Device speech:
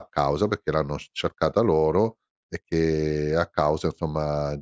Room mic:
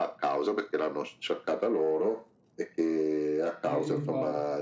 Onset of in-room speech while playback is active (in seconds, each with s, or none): 3.6 s